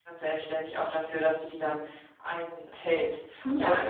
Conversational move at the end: taking over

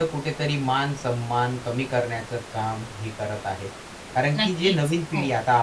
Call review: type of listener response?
listening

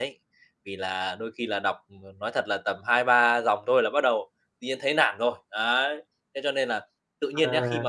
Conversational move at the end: listening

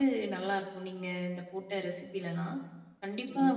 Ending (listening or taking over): listening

